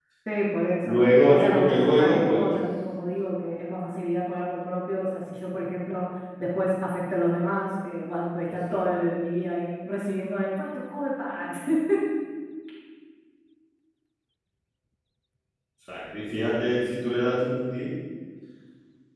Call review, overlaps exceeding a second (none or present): present